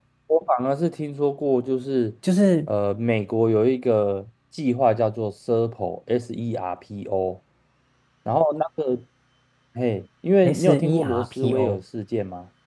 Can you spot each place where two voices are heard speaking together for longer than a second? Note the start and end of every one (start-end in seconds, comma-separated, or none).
10.4-11.8